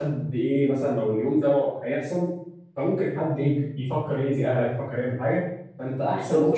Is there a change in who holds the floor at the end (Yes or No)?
Yes